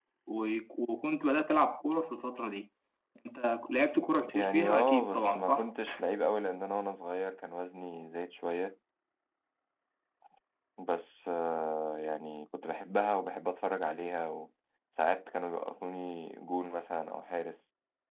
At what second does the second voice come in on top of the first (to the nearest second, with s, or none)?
4 s